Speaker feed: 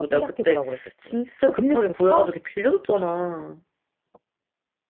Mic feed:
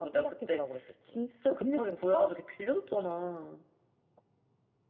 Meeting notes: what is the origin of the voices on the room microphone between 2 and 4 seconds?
echo only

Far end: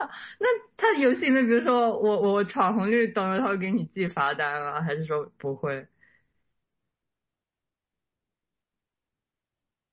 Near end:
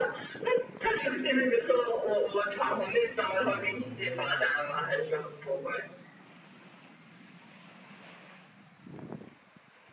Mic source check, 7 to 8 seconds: neither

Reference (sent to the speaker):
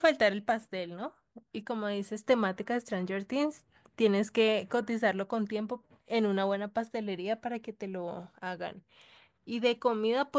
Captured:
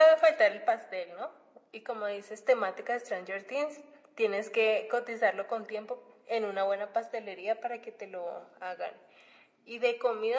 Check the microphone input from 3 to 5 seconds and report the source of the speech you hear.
echo only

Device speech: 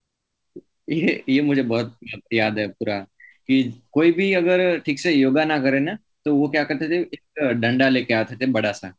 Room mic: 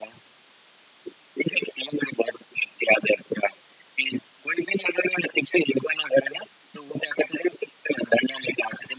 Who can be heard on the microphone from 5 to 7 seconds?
echo only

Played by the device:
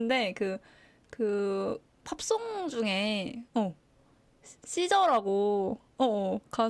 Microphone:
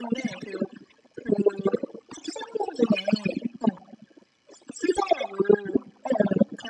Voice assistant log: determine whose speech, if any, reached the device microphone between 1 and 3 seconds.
echo only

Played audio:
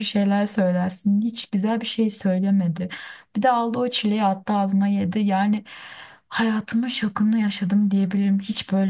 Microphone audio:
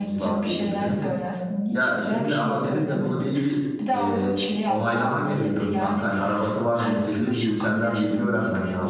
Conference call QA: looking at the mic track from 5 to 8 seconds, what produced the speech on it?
both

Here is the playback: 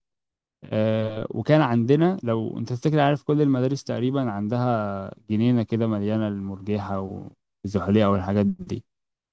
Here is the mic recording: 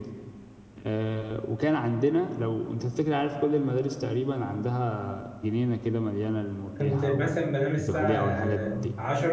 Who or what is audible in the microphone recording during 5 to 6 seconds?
echo only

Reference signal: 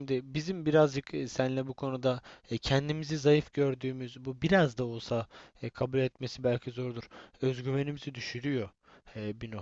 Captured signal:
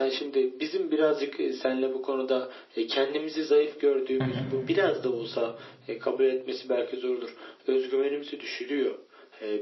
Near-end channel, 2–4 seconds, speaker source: echo only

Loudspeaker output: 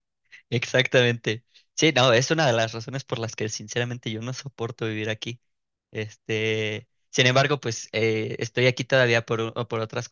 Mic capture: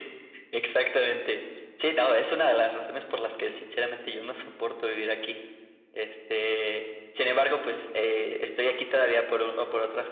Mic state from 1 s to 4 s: echo only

